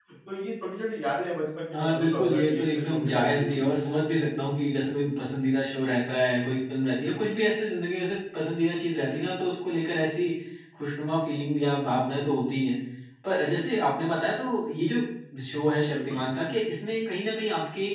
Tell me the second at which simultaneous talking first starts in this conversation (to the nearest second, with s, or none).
2 s